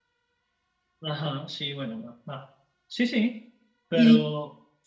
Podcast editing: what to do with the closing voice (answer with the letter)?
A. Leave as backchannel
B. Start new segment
B